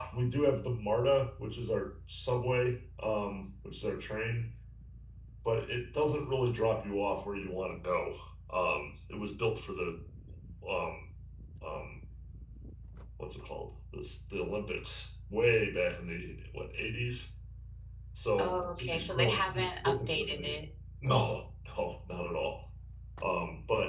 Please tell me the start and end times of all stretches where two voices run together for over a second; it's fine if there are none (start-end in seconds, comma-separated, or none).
18.4-20.5